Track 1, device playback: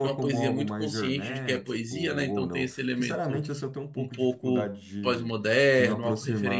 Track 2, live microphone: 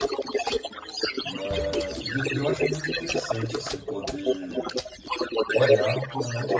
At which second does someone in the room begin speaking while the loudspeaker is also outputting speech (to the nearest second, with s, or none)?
1 s